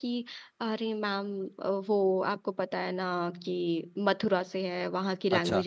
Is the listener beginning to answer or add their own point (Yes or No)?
No